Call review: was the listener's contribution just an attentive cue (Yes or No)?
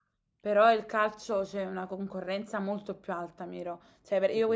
Yes